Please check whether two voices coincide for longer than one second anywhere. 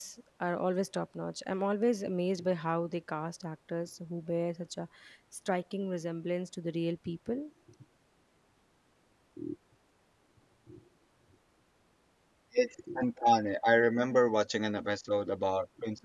No

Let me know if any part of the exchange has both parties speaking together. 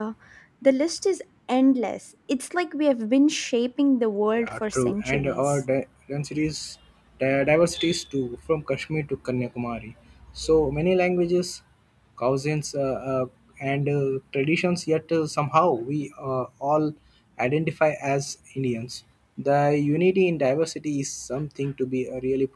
Yes, from 4.3 s

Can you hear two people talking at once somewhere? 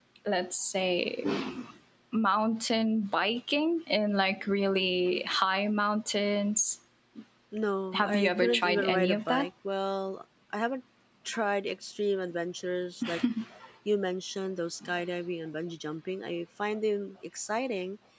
Yes, from 7.9 s

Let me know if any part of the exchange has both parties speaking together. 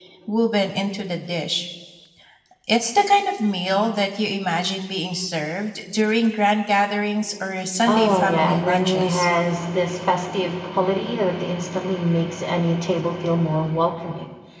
Yes, from 7.9 s

